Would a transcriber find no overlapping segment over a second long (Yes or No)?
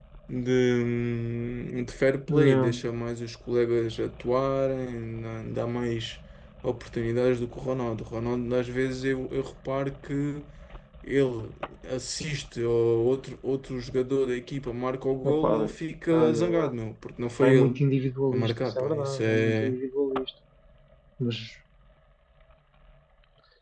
No